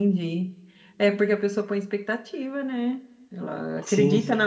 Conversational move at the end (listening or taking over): taking over